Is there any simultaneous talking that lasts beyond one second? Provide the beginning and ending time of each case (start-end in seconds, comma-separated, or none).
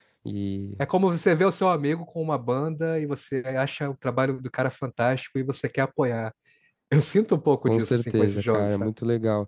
7.7-8.9